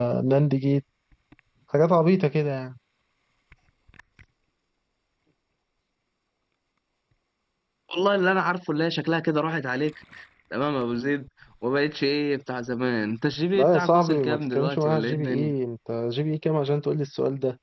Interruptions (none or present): present